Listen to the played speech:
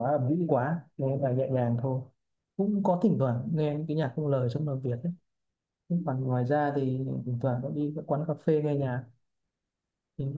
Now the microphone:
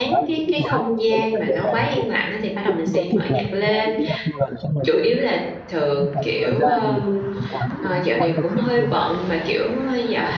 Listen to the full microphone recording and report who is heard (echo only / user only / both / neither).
both